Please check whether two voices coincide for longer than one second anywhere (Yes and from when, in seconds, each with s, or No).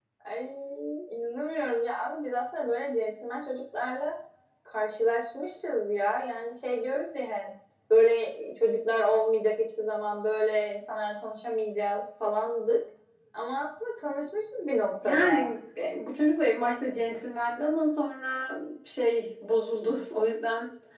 No